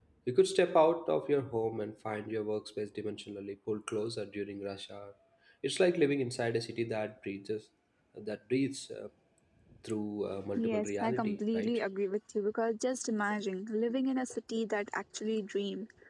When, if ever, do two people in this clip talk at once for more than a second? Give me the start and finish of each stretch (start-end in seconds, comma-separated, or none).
10.6-11.8